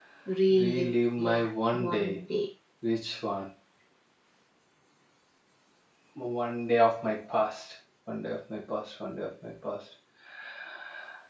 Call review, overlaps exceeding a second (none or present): present